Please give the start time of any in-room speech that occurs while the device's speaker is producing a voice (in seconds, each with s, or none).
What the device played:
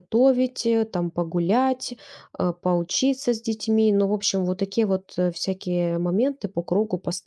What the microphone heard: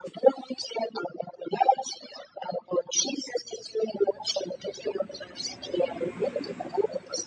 none